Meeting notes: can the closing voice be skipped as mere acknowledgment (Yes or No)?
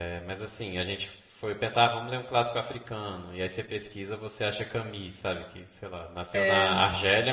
Yes